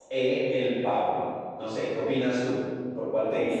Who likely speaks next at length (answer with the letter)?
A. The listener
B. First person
A